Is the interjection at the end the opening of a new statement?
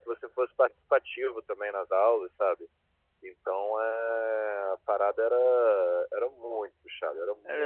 No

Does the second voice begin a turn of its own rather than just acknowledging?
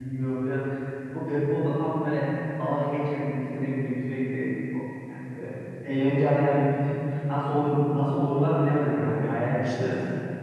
Yes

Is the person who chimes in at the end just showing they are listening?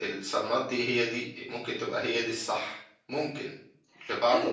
No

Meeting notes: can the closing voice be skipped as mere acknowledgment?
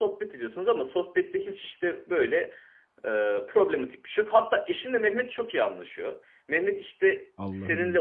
Yes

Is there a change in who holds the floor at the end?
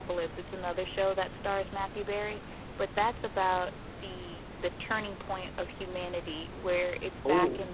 No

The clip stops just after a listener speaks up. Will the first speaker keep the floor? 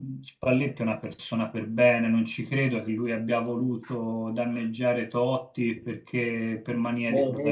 No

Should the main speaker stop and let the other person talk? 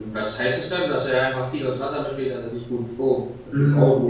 Yes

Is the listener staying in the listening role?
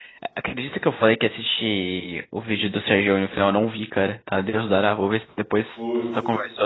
No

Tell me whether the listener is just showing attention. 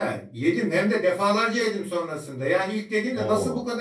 Yes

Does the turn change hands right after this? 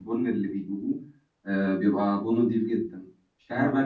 No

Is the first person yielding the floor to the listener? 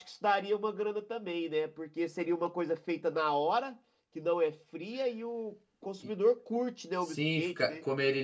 Yes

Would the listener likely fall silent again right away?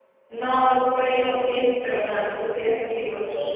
No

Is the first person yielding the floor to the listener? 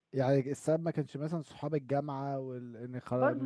Yes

